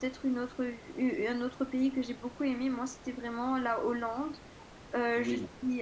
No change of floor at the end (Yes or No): Yes